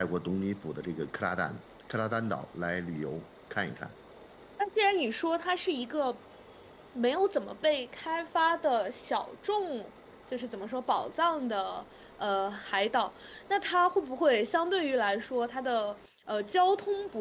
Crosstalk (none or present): none